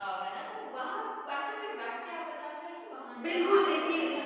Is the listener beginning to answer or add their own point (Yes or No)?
Yes